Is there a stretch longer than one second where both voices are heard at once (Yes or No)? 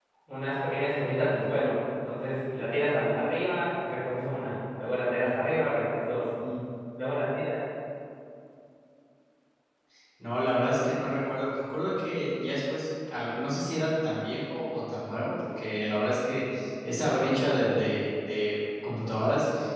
No